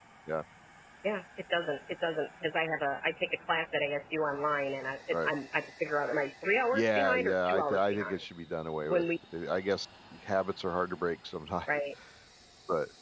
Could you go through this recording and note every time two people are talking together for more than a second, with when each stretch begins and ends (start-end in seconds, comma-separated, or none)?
6.7-8.1